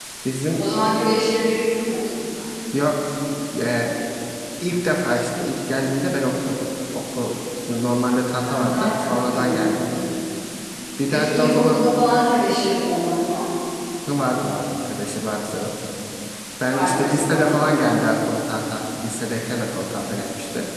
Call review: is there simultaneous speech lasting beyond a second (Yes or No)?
Yes